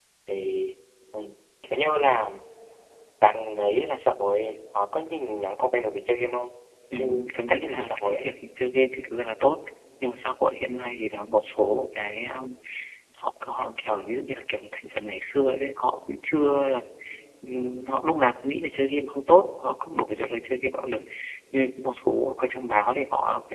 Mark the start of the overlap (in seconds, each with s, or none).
6.9 s